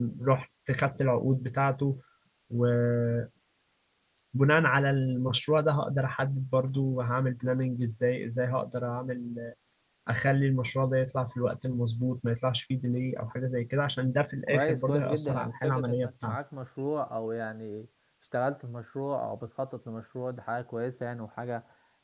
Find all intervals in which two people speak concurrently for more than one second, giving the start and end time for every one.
14.5-16.4

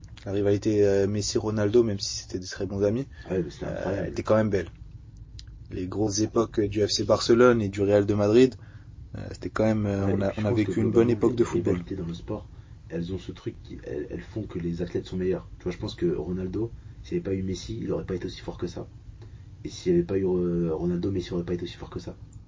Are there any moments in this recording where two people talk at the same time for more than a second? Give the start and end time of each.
10.0-11.8

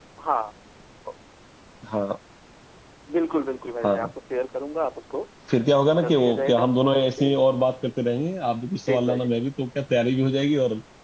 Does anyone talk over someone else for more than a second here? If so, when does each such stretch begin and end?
6.0-7.3

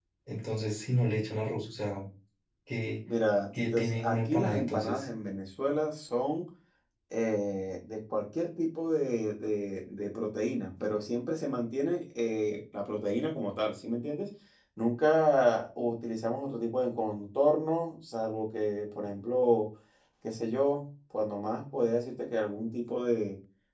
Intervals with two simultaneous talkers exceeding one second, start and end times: 3.6-5.0

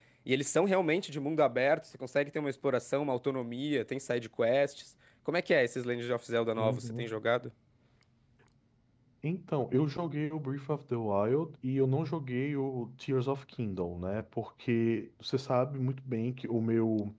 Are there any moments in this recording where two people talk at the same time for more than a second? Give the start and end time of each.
none

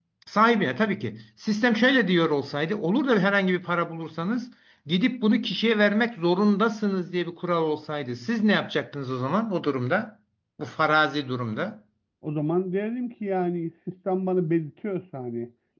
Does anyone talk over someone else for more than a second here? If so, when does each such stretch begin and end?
none

